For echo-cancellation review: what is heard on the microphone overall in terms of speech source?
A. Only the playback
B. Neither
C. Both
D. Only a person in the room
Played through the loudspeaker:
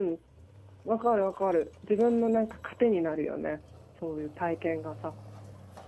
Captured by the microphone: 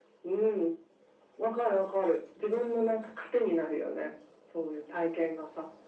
A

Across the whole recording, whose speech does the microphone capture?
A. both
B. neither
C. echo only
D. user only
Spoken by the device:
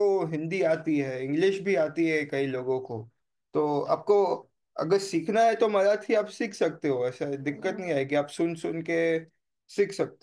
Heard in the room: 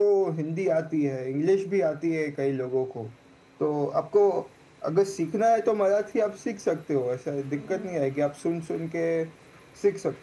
C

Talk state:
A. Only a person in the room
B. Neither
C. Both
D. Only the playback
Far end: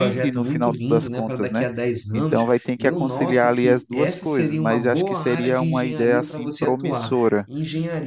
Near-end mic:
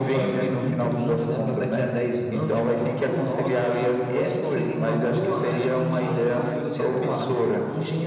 C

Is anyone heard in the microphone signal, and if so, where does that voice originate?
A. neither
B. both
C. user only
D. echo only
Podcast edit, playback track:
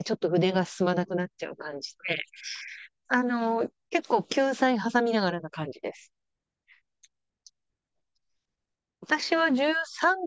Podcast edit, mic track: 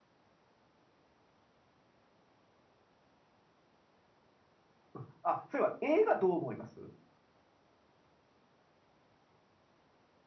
C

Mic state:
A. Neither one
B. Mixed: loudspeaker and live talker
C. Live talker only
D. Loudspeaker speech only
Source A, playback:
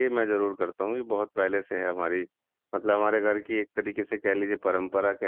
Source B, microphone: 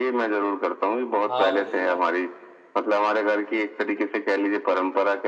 B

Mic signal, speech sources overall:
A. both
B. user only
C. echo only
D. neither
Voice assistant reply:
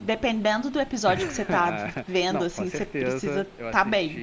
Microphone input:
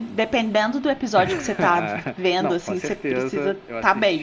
C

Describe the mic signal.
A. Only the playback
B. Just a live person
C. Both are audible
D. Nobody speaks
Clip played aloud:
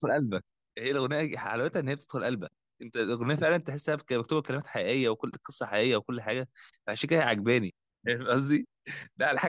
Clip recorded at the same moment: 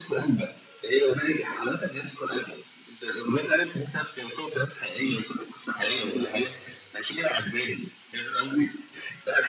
C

